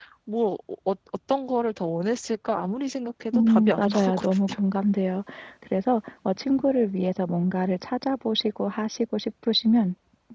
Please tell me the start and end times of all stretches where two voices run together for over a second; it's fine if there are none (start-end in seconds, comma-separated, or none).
3.3-4.6